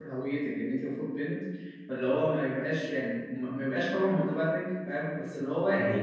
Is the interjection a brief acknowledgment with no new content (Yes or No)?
Yes